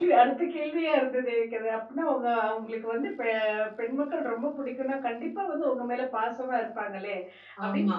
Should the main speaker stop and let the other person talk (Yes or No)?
No